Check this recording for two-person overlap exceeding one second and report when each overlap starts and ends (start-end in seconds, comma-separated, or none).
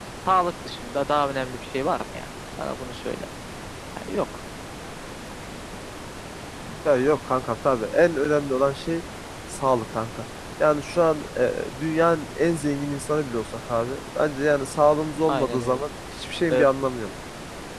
none